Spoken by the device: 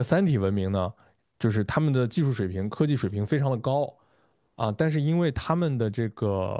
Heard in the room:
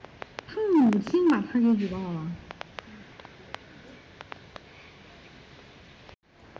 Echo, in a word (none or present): none